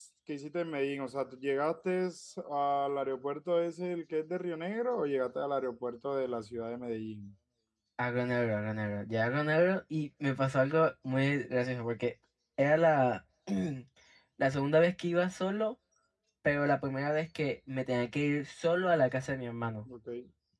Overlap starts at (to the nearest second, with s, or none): none